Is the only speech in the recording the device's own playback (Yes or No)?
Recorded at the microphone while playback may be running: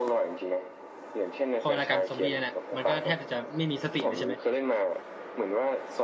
No